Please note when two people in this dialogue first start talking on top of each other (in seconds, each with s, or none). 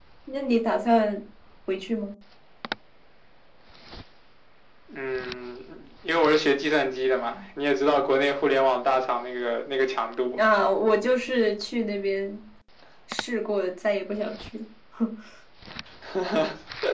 none